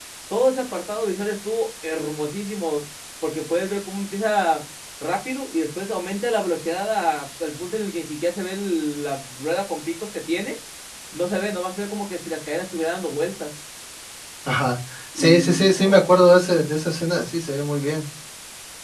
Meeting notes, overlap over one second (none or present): present